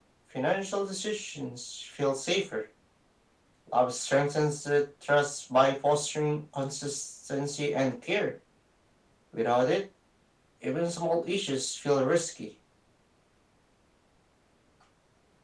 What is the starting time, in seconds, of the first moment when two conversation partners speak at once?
none

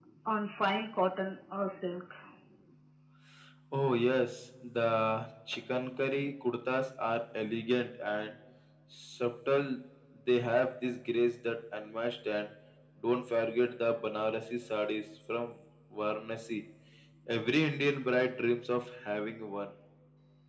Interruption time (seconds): none

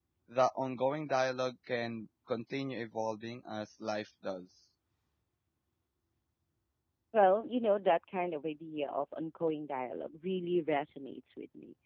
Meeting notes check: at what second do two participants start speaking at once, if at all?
none

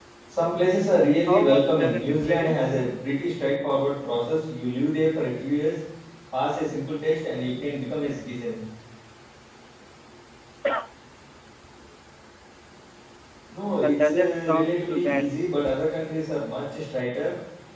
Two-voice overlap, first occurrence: 1 s

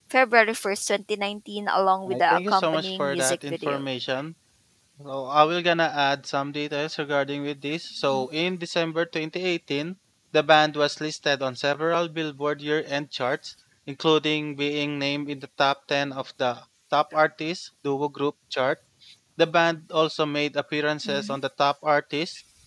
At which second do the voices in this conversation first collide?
2 s

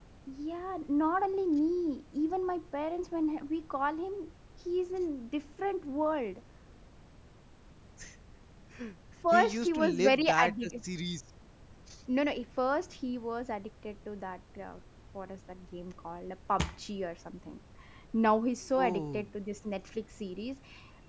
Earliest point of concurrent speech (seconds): 9 s

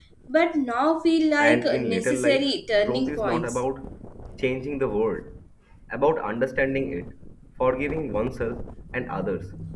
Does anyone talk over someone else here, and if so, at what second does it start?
1 s

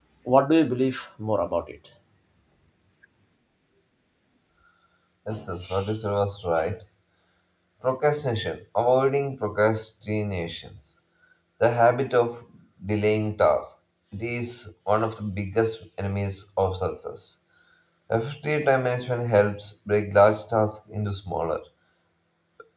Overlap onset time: none

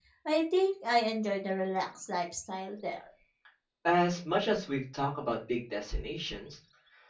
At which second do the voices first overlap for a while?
none

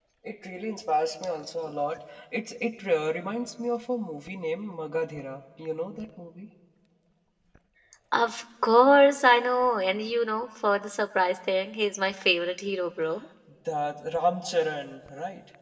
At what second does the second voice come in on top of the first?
none

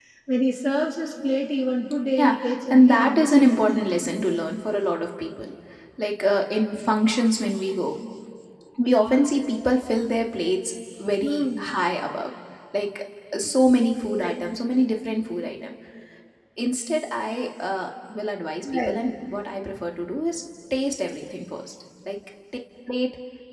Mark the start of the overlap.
2 s

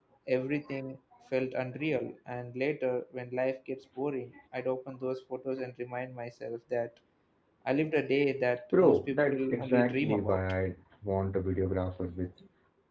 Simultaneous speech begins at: 9 s

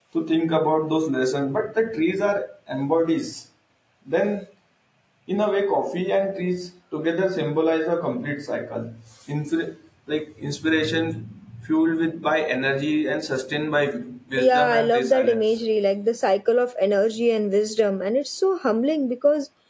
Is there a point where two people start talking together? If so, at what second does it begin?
14 s

